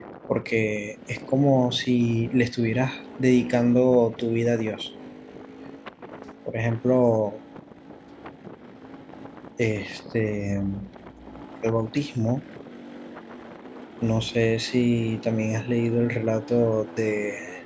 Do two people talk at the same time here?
No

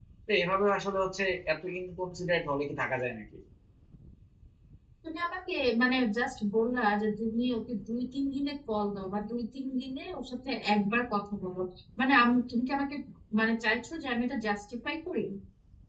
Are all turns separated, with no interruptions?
Yes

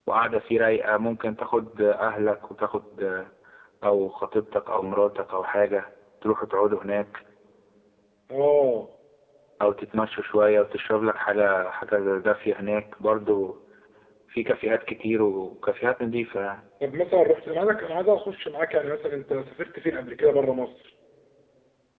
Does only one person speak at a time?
Yes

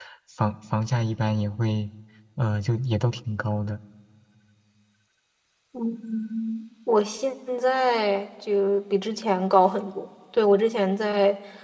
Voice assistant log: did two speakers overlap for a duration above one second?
No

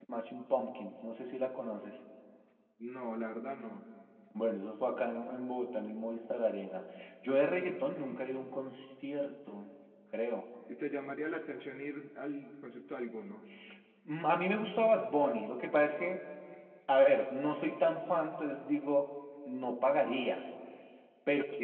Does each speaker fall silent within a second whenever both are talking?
Yes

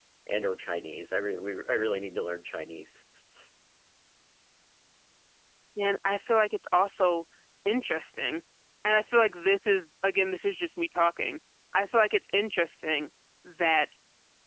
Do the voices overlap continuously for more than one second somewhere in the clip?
No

